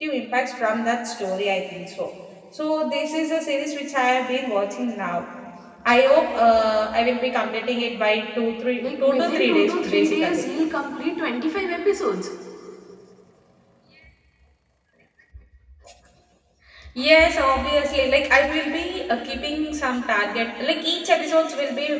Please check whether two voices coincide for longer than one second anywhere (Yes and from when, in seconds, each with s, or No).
Yes, from 8.8 s